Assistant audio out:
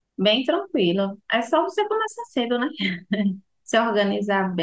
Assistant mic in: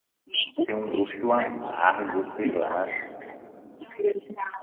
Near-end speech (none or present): present